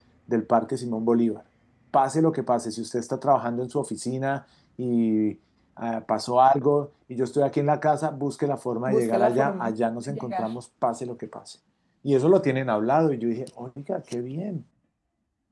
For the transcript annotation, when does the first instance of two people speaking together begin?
8.9 s

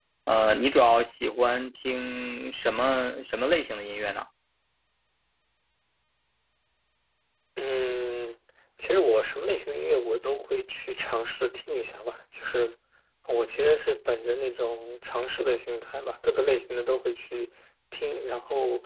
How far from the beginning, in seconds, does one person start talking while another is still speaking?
none

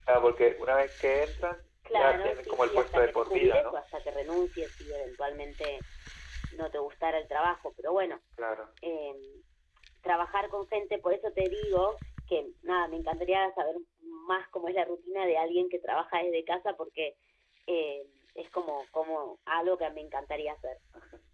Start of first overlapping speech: 1.9 s

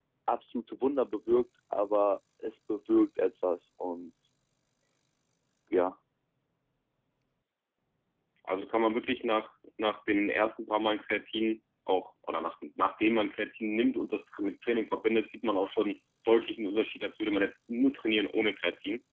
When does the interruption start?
none

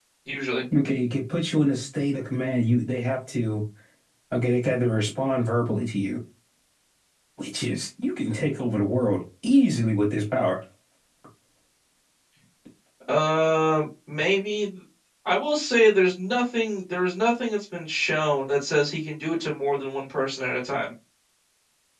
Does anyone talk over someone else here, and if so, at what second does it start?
none

